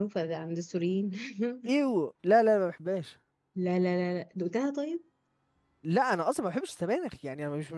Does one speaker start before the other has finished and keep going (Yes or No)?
No